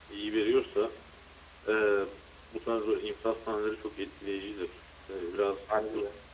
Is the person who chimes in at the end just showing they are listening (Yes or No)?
Yes